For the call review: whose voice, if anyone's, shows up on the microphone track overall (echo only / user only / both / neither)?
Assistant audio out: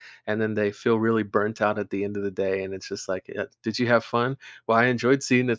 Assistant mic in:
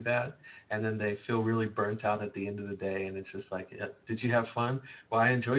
echo only